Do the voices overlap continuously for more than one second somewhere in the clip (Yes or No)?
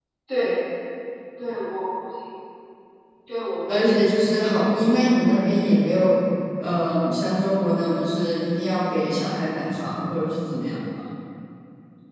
Yes